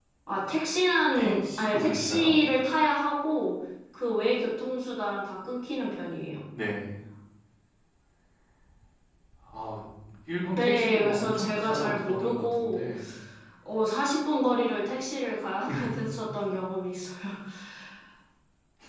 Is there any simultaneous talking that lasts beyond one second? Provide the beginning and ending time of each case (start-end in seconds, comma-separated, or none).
1.1-2.3, 10.5-12.9